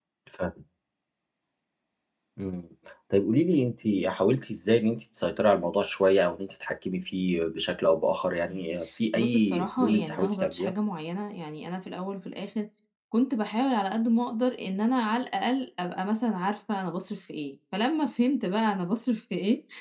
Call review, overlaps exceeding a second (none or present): present